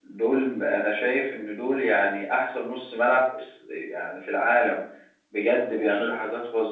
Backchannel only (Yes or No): Yes